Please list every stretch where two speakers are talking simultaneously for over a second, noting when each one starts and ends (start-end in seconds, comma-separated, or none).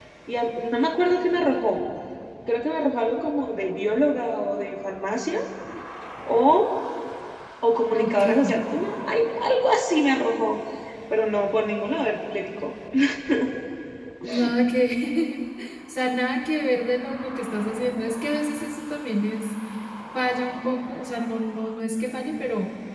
none